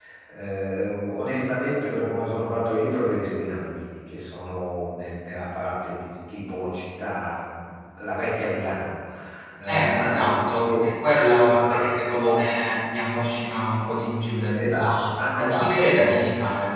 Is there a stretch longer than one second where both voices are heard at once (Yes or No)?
Yes